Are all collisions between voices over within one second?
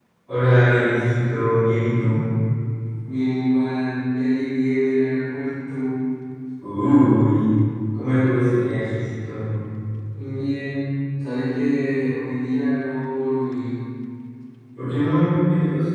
Yes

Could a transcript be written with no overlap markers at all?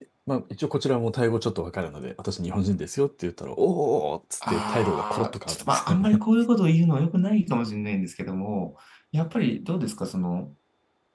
No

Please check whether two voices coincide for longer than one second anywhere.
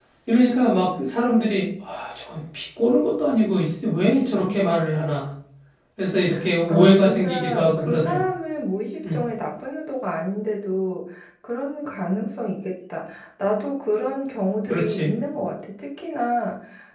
Yes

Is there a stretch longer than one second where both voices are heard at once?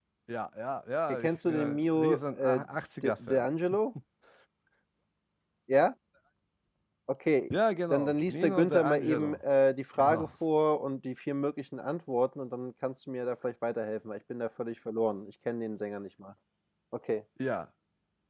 Yes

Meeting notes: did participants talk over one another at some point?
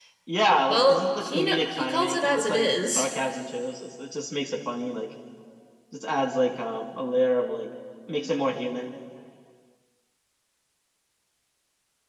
Yes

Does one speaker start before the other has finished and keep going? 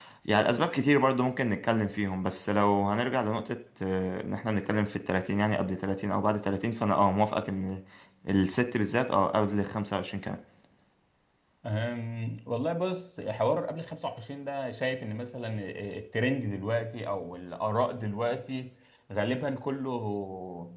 No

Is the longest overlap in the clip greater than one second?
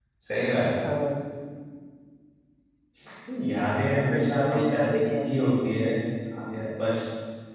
Yes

